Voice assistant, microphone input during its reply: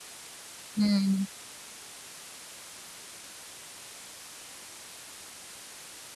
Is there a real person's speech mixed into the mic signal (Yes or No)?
Yes